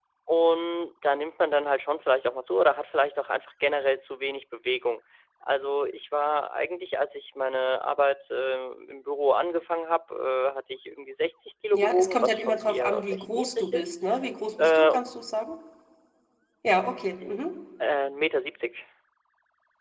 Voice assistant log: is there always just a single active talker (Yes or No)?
No